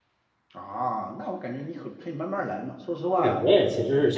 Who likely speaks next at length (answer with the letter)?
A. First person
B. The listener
B